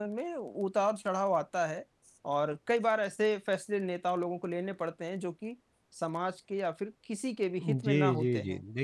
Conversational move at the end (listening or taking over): taking over